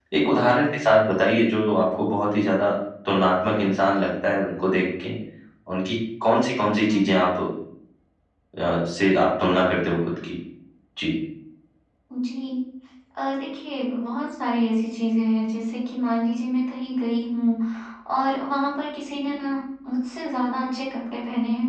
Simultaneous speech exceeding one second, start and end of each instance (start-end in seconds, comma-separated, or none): none